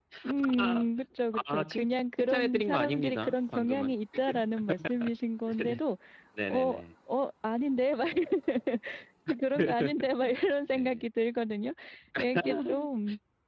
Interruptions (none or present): present